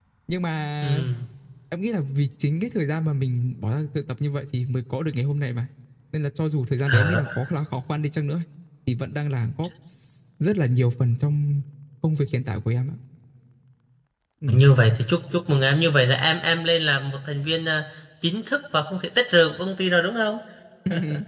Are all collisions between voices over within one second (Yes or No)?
Yes